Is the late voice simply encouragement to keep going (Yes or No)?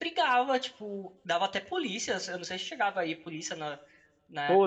No